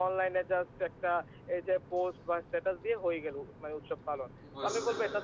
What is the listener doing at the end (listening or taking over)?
listening